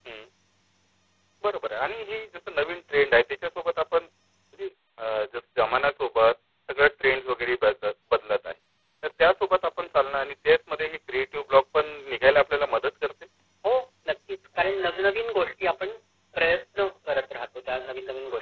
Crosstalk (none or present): none